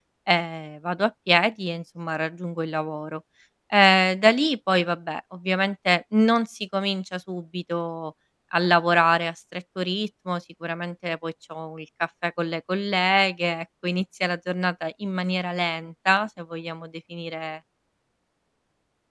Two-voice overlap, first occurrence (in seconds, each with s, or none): none